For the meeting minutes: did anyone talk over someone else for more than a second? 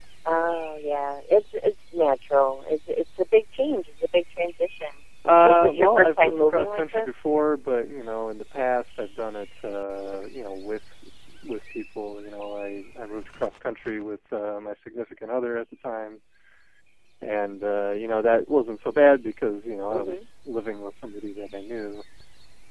Yes, from 5.4 s

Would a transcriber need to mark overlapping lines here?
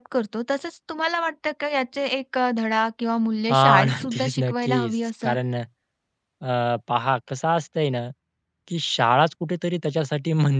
Yes, from 3.5 s

